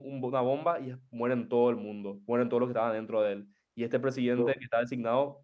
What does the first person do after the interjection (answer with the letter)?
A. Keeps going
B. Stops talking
A